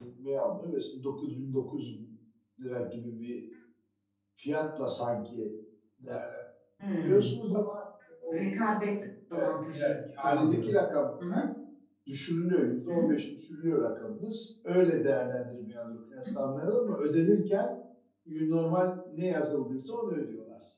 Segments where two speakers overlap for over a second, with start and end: 9.3-10.7

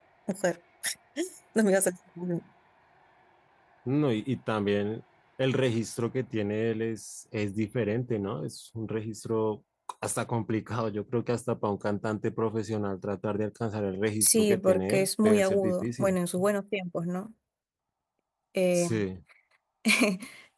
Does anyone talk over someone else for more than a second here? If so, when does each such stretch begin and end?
14.2-16.1

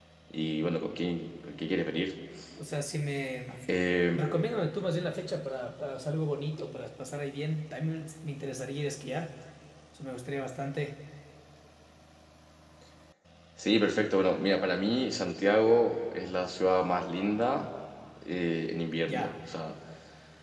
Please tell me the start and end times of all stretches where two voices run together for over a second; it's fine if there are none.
none

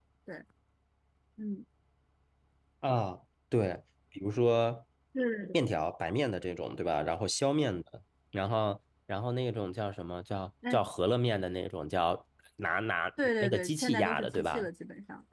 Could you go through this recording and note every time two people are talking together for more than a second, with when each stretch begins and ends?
13.4-14.7

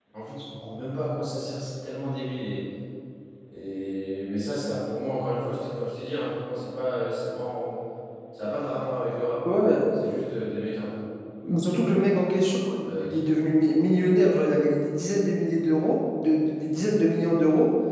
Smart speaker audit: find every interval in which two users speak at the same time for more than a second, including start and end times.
none

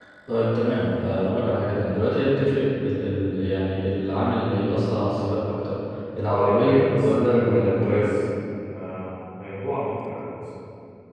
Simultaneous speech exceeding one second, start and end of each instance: 6.3-8.2

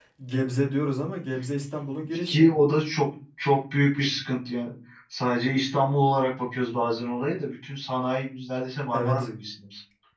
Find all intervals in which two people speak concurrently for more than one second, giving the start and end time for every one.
none

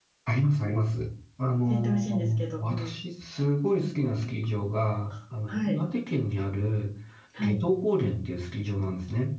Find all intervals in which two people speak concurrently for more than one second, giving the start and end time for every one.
1.7-3.0

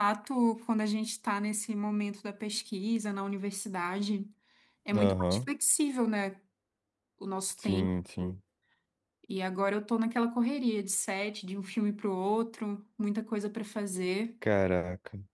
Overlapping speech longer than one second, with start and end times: none

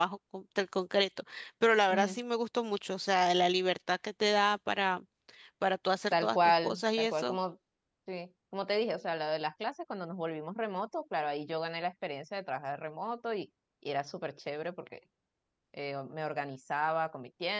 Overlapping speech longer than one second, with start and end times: 6.1-7.4

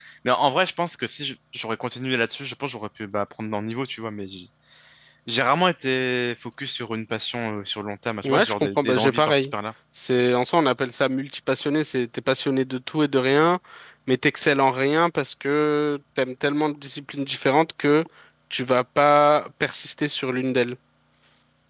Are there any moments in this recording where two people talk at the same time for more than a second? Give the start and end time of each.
8.2-9.4

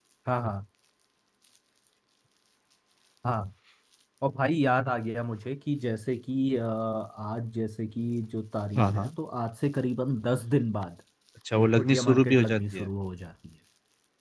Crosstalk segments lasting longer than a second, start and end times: 11.6-12.9

